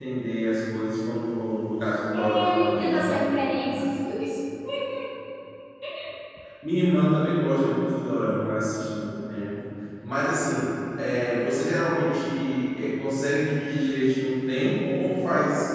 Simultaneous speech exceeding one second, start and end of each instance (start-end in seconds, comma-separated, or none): 2.1-3.9